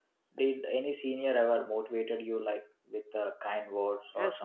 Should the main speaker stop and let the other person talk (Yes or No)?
Yes